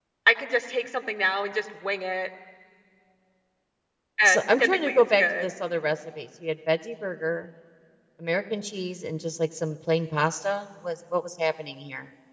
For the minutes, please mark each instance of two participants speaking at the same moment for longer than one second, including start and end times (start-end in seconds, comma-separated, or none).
4.2-5.5